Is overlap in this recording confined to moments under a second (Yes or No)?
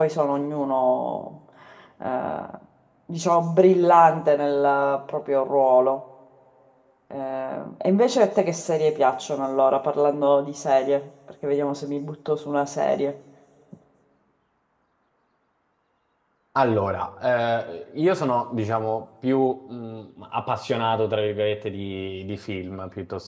Yes